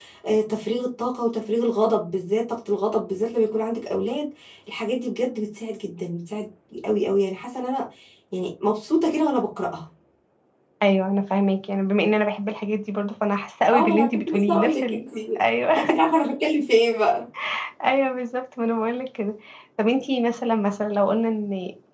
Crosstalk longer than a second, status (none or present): present